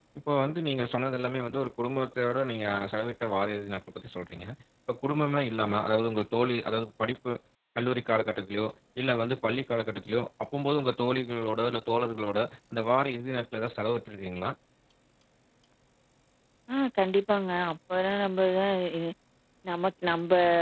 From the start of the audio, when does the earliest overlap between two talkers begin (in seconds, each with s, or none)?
none